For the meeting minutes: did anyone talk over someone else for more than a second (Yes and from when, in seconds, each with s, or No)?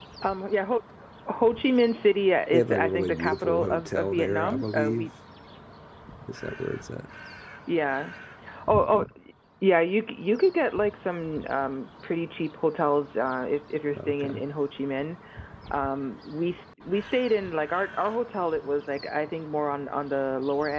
Yes, from 2.5 s